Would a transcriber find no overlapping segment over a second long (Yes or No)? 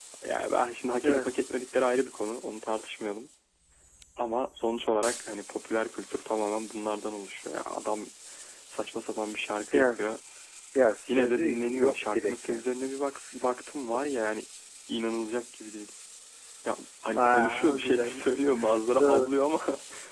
No